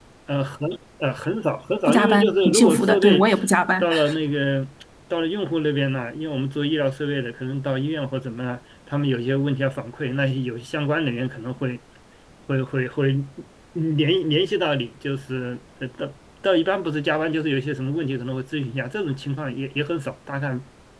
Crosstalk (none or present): present